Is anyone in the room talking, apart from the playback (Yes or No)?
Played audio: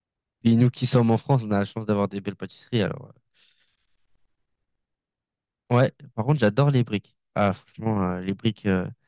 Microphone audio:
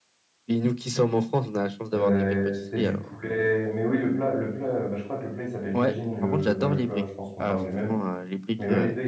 Yes